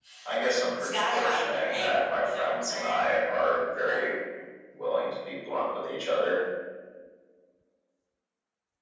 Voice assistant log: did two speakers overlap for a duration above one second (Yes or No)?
Yes